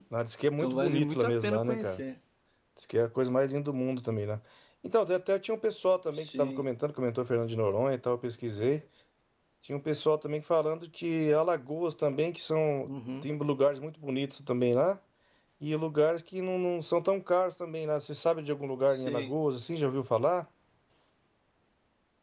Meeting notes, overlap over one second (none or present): present